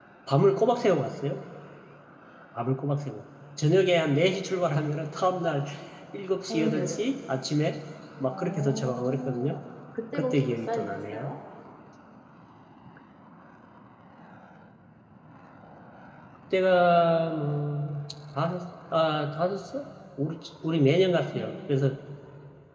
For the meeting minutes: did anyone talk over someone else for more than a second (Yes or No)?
Yes